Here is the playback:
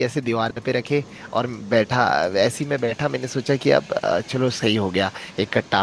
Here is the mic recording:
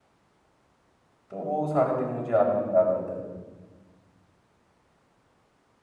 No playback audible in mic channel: Yes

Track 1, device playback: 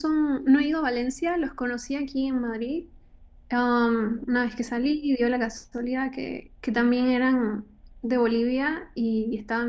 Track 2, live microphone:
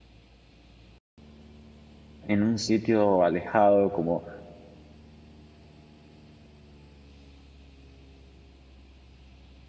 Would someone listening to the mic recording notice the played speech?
No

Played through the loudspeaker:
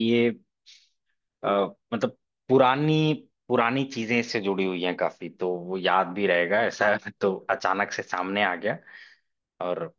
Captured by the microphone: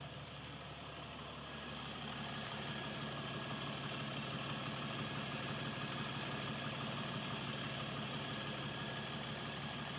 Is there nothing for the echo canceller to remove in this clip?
Yes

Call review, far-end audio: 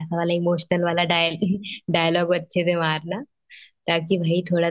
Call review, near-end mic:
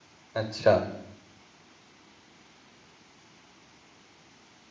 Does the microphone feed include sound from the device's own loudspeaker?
No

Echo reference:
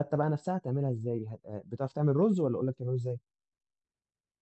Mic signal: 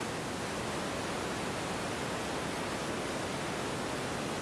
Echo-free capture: Yes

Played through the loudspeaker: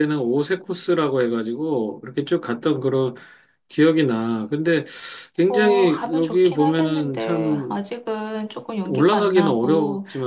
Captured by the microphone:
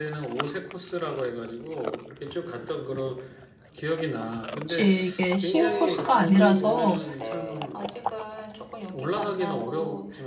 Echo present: Yes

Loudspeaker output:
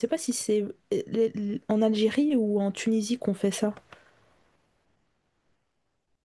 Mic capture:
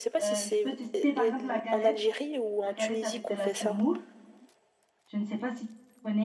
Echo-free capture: No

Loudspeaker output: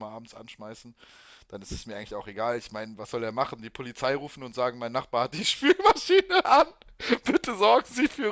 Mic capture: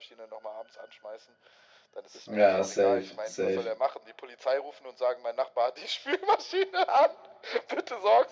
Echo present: Yes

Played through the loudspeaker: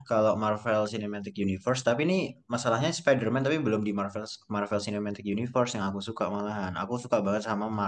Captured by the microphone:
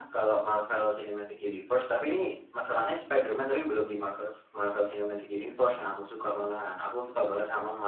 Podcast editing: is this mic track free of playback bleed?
No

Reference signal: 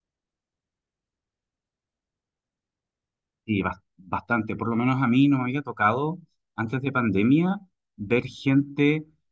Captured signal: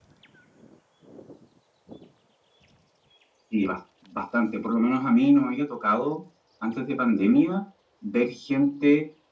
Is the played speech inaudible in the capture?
No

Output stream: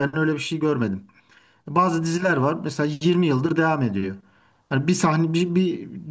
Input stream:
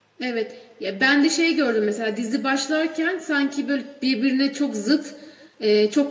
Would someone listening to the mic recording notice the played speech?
No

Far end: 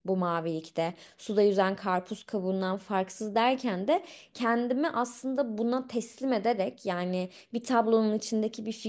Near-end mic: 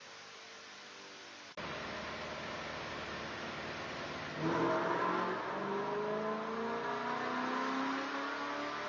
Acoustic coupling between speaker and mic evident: No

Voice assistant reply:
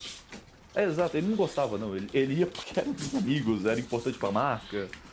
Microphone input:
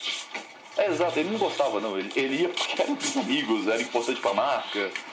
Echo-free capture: No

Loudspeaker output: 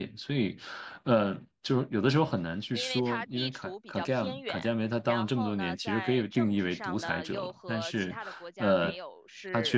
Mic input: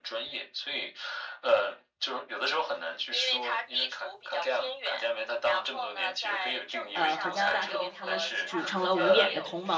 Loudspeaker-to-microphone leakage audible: Yes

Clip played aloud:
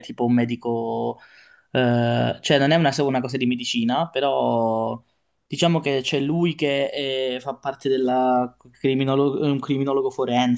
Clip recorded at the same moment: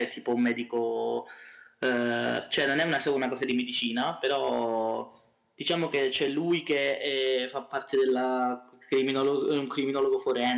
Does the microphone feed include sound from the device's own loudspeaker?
Yes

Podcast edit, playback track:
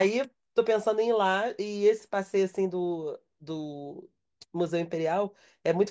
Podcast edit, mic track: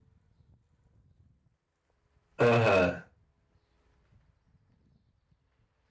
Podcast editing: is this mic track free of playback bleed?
Yes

